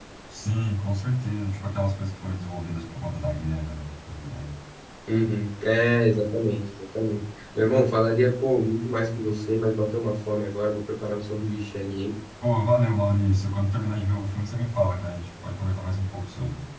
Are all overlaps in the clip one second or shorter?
Yes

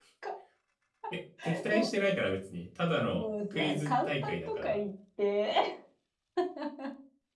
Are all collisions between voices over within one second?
No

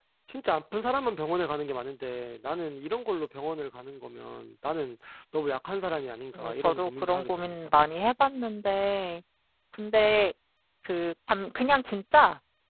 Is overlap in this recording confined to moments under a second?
No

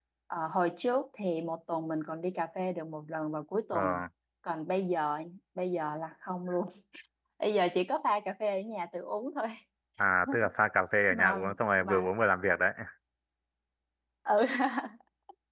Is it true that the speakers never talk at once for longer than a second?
Yes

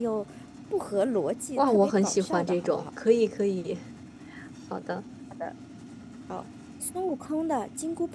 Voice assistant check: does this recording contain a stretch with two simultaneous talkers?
Yes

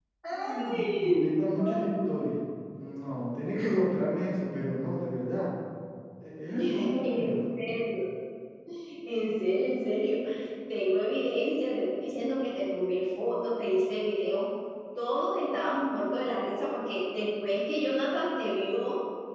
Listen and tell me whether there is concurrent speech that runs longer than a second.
Yes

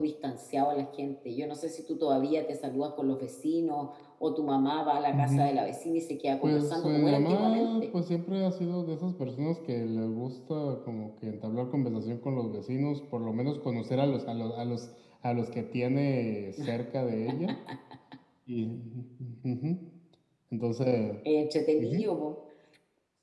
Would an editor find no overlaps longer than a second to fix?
No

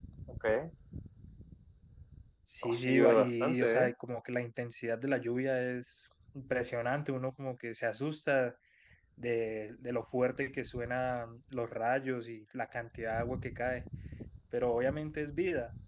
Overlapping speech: Yes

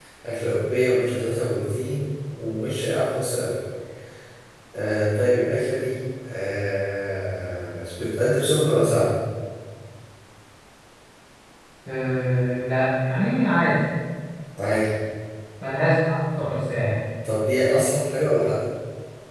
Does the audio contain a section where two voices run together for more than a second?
No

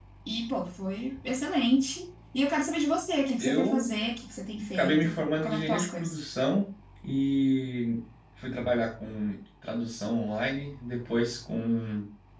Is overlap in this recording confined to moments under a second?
No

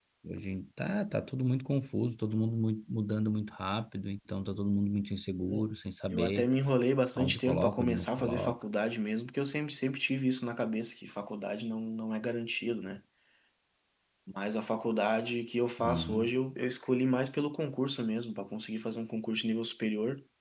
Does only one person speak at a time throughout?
No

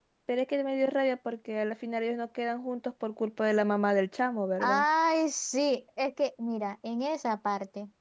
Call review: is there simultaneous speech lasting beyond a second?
No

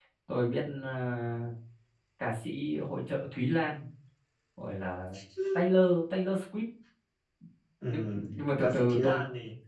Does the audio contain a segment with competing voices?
Yes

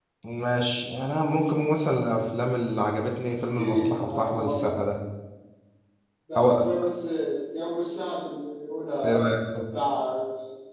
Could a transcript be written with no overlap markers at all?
No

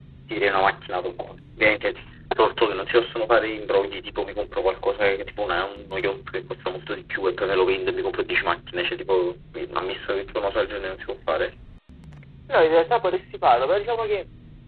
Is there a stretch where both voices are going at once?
No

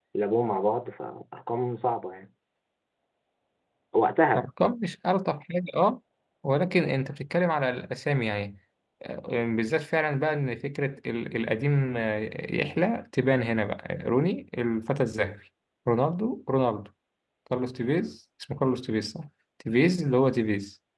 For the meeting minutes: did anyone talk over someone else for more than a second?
No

